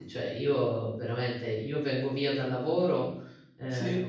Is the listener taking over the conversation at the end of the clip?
No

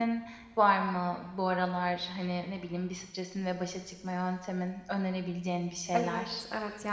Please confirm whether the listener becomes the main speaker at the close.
Yes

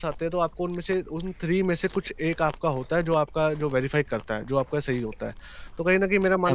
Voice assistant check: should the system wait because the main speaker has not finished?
No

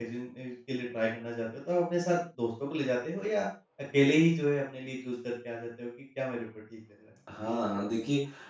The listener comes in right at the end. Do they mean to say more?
Yes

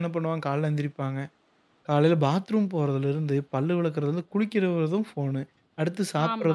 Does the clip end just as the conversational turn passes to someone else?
No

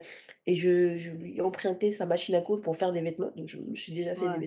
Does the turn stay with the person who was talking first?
Yes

